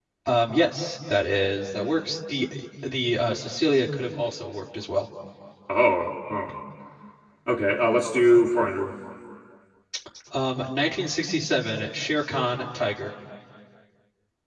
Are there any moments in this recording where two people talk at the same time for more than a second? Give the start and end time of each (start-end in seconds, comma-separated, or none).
none